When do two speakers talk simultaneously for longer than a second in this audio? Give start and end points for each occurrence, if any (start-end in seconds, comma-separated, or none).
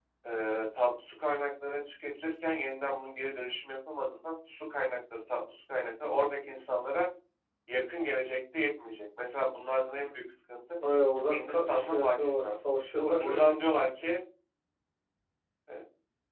11.3-12.6